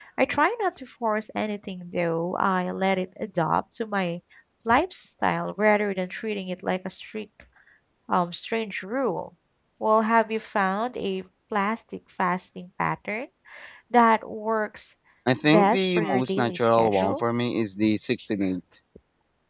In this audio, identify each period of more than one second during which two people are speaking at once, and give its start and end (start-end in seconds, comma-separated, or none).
15.4-17.2